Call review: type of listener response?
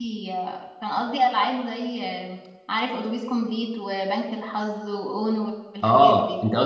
taking over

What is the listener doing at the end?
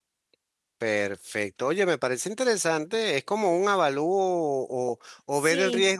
listening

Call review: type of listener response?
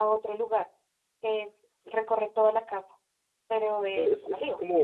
taking over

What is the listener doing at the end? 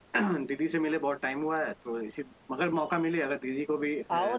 taking over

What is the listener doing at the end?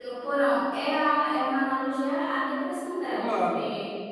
listening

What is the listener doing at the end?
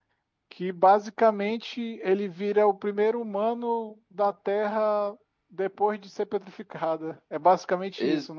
taking over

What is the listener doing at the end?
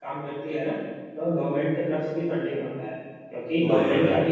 listening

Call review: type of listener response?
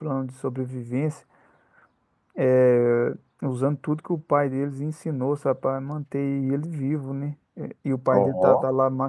listening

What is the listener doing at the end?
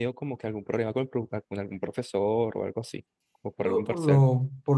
taking over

